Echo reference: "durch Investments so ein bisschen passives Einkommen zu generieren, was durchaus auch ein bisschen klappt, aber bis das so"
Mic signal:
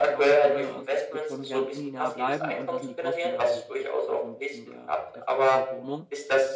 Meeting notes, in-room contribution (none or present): present